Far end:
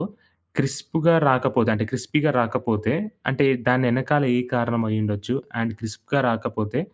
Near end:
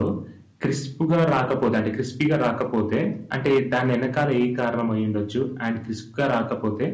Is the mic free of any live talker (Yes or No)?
Yes